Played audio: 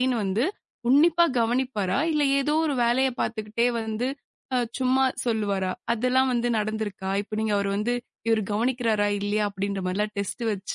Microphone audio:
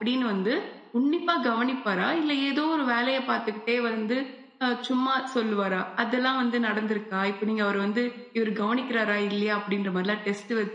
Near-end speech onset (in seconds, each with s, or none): none